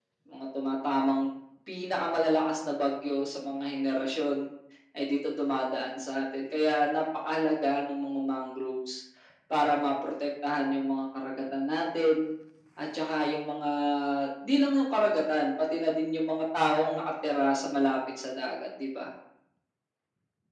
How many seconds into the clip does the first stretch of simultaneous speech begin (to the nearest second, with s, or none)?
none